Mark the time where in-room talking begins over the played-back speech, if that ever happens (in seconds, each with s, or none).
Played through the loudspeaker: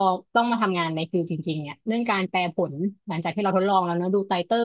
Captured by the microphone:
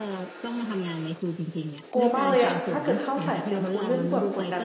1.9 s